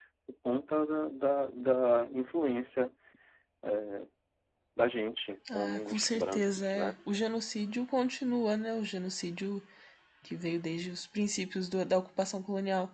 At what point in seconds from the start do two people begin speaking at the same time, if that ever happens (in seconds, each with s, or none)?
5.5 s